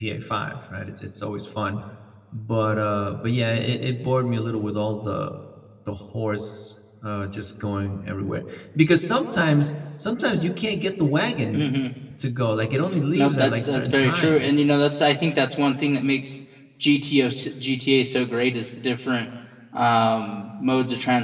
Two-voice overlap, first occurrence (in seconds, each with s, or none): 13.2 s